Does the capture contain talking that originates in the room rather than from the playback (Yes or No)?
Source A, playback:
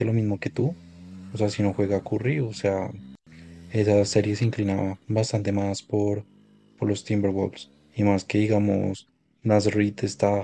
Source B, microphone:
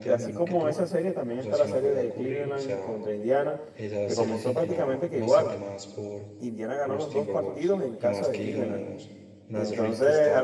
Yes